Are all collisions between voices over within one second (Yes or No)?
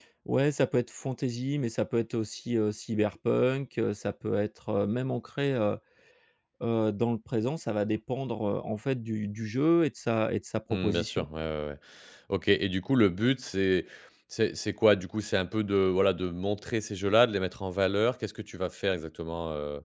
Yes